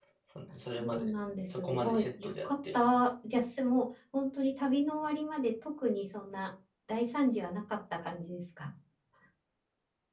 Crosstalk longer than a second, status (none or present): present